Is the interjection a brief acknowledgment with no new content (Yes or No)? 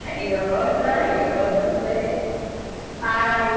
No